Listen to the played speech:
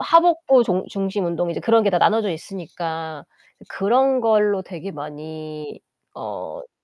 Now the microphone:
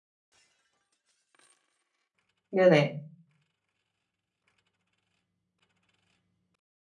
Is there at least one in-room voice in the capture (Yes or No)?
Yes